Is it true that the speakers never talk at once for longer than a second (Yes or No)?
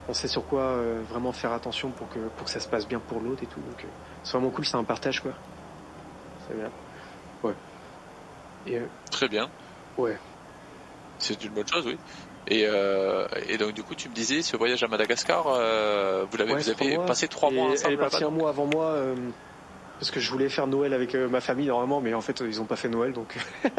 No